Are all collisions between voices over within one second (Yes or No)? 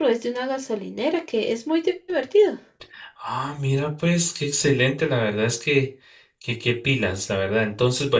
Yes